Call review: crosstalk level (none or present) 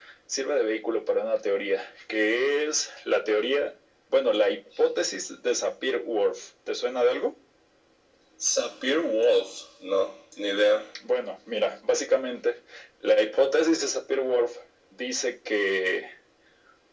none